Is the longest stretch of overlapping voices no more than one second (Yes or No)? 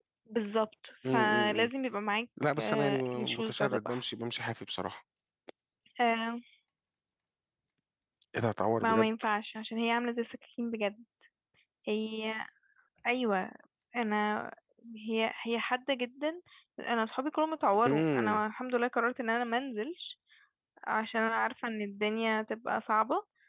No